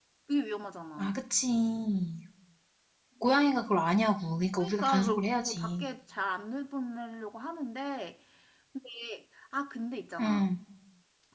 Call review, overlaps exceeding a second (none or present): present